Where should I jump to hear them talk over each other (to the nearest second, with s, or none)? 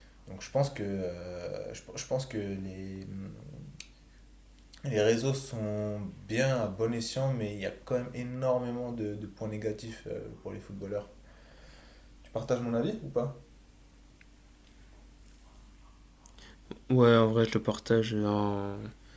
none